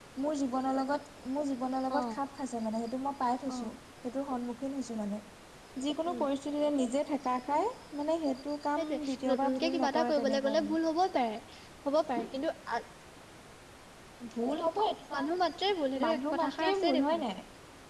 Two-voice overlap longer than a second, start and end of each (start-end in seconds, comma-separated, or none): 8.8-10.8, 16.0-17.2